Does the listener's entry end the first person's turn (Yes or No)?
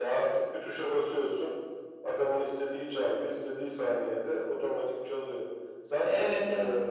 No